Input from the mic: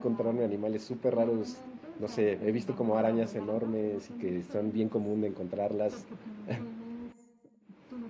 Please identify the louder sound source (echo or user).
user